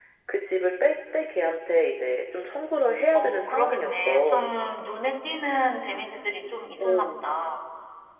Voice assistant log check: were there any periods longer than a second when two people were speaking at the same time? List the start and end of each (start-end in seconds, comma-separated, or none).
3.1-4.5